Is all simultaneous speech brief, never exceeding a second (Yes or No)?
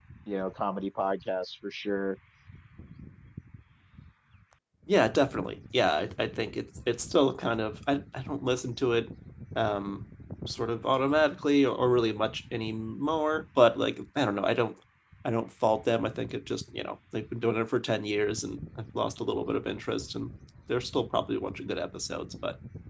Yes